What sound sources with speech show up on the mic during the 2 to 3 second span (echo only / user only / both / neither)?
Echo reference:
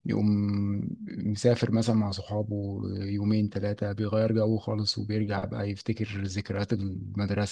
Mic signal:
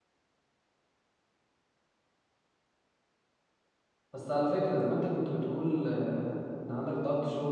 neither